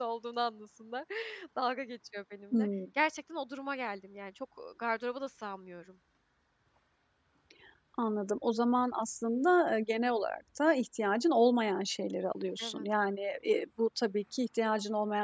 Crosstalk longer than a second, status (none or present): none